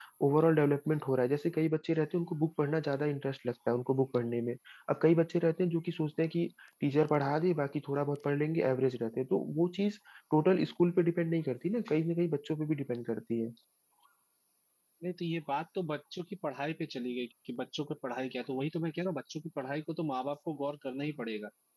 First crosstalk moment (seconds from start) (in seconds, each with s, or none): none